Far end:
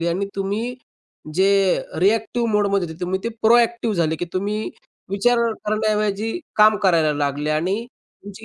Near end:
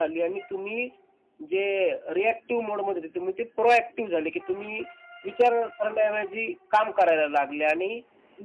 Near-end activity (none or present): none